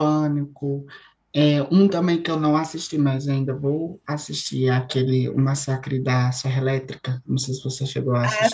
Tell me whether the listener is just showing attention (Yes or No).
No